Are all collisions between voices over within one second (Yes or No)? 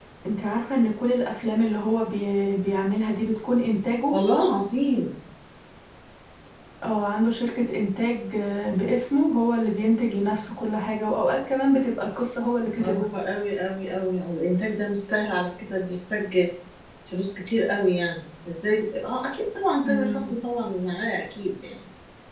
Yes